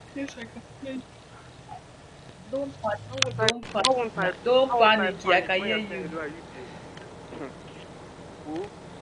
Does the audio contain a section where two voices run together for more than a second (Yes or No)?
Yes